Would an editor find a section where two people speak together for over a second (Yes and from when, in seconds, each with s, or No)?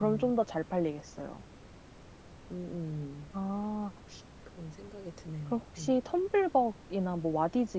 No